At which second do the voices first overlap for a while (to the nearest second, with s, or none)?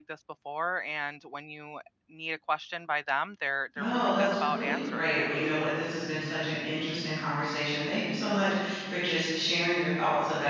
4 s